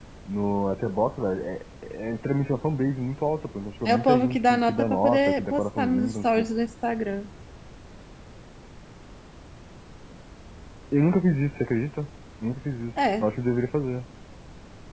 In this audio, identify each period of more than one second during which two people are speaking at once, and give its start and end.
3.9-6.5

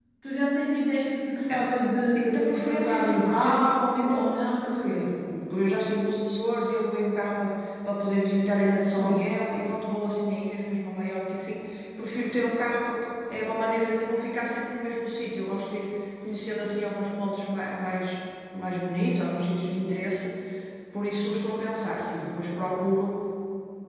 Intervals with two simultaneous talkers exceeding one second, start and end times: 2.1-5.0

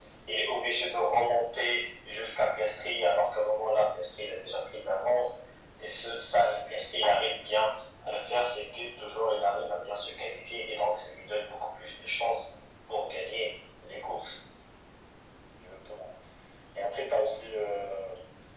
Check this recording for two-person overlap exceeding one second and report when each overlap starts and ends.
none

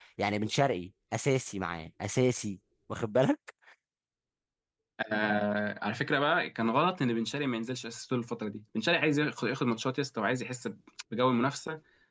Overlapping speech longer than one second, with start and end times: none

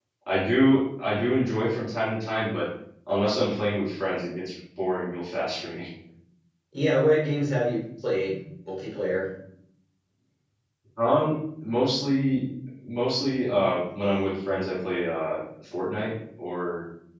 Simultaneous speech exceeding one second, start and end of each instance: none

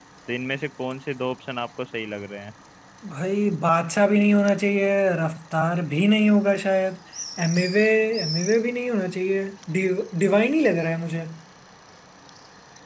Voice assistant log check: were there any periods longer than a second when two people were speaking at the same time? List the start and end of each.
none

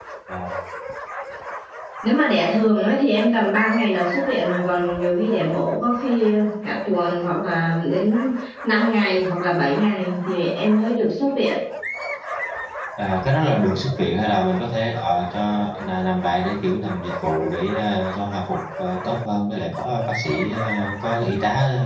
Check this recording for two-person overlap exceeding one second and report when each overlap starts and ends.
none

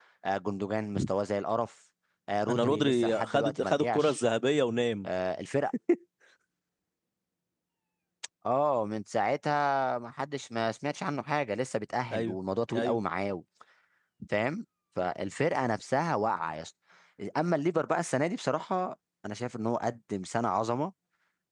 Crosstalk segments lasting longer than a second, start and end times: 2.5-4.2

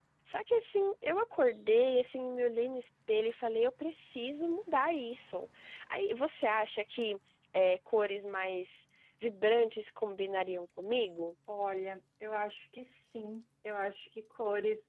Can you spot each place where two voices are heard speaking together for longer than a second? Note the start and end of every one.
none

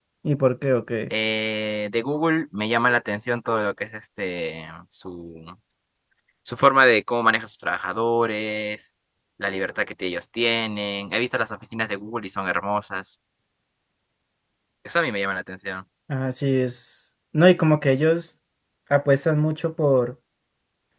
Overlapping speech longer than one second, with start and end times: none

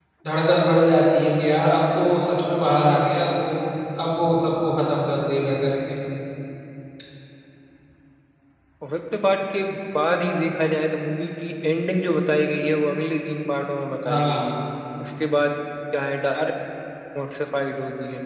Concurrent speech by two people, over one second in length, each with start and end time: none

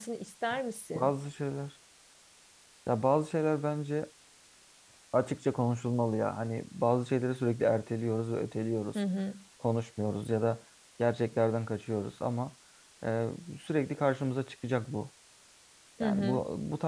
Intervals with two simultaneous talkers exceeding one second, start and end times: none

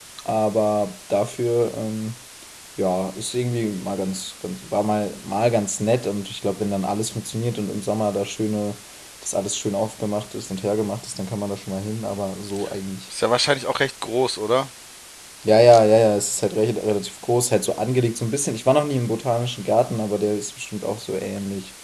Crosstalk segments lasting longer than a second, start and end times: none

